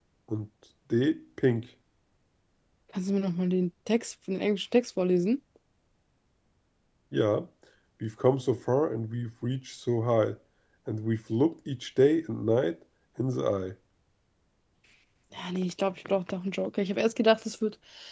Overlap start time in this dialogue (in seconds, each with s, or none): none